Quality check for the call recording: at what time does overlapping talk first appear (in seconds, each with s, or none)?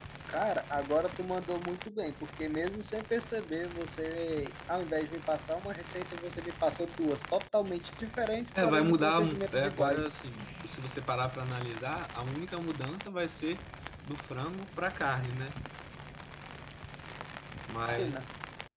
8.6 s